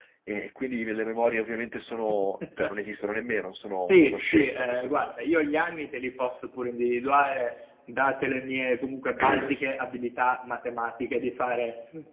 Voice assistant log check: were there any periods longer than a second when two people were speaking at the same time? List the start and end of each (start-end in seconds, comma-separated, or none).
3.9-5.1